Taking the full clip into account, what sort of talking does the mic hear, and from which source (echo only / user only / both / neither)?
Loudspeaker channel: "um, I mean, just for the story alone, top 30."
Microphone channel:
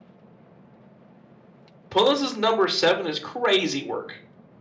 user only